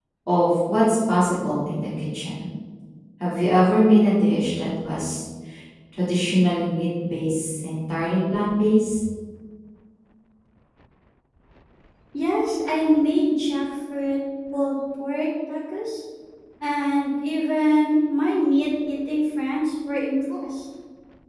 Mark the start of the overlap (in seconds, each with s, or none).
none